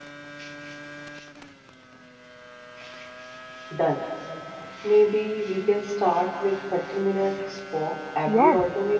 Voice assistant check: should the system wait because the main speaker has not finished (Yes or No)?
No